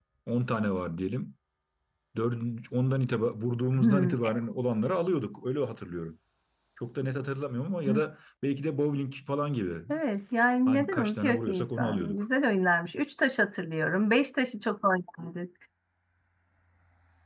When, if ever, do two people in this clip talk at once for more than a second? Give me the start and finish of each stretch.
10.7-12.2

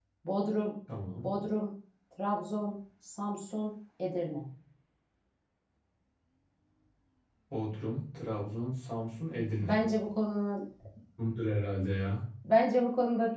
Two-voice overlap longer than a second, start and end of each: none

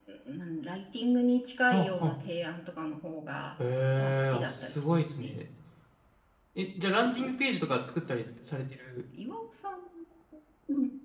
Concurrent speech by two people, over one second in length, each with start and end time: 4.0-5.3

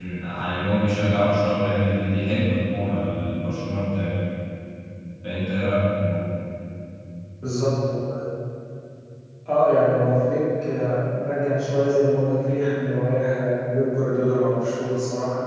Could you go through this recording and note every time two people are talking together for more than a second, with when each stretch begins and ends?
none

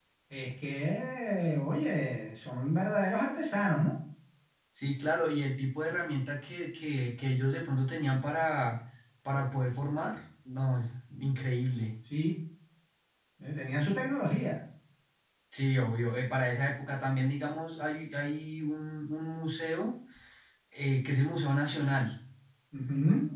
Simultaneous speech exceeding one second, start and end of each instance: none

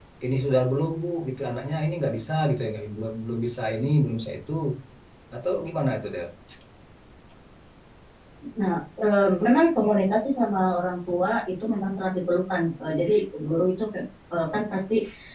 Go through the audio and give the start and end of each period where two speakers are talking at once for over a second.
none

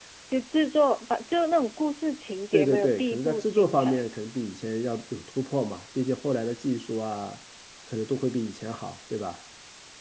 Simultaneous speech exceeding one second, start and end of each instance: 2.5-4.1

